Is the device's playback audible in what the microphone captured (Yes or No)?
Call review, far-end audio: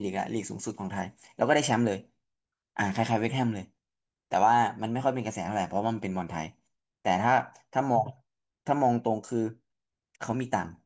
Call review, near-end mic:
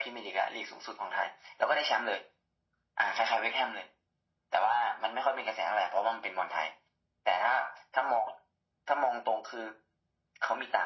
Yes